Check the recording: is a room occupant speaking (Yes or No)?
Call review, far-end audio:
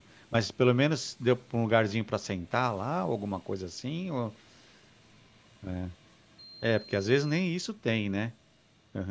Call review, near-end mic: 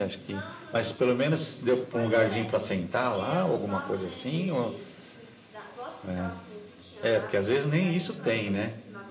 Yes